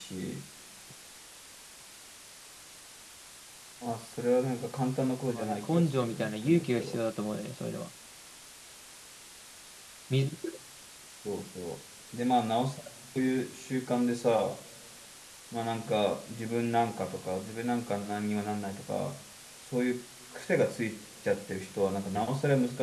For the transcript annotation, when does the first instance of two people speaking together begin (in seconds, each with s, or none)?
5.3 s